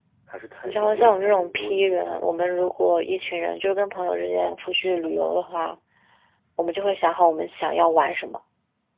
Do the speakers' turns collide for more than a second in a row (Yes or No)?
Yes